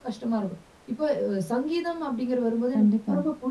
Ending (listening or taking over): listening